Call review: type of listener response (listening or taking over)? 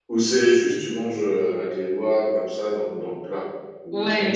taking over